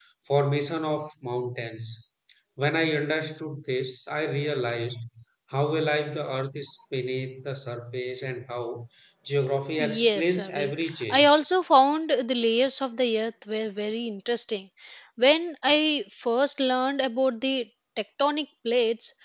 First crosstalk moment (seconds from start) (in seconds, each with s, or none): 9.8 s